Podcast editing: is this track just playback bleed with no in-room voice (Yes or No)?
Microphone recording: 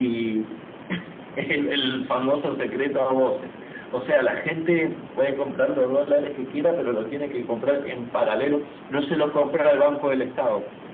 Yes